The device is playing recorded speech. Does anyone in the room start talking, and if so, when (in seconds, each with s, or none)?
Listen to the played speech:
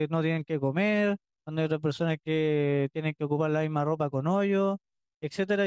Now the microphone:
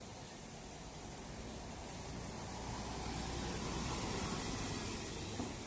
none